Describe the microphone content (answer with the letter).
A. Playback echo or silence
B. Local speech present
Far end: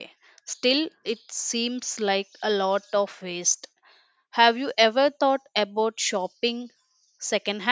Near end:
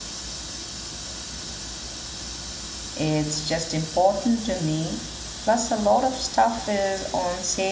B